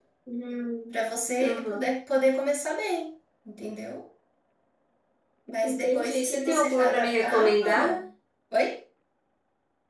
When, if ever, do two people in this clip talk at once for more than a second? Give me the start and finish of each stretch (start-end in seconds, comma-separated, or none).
5.6-7.8